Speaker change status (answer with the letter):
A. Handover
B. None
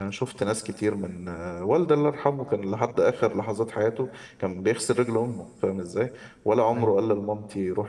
B